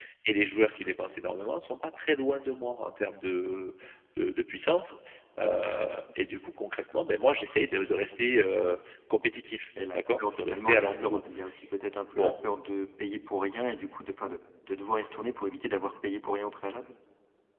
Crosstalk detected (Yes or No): Yes